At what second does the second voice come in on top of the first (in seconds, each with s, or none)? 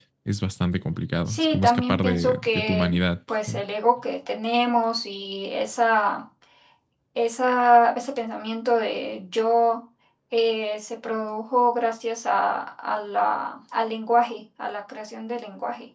1.3 s